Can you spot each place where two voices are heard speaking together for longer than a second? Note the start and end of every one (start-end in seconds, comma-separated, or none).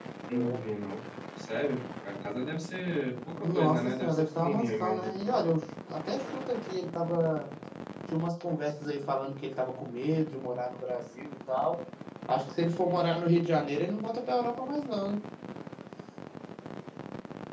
3.4-5.2